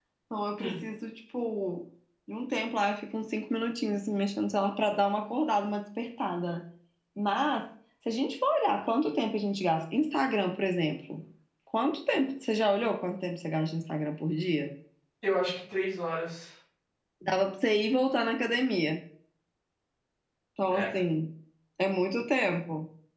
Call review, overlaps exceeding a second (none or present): none